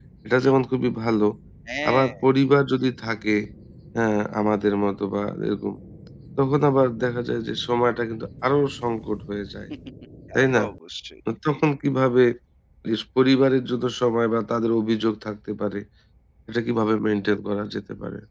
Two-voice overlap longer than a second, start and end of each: none

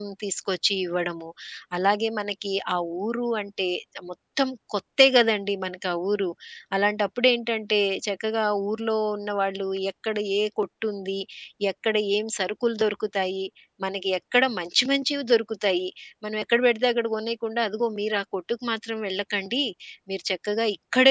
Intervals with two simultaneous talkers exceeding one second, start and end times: none

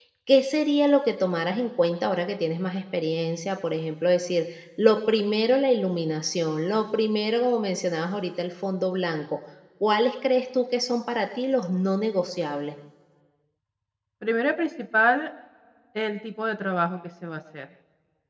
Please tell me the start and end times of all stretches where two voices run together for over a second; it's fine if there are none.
none

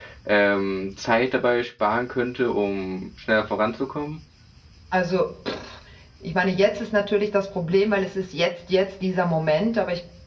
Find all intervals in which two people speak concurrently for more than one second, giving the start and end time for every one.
none

